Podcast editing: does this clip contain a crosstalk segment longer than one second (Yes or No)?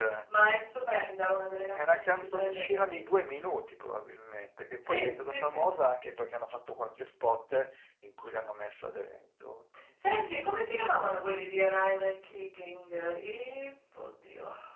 Yes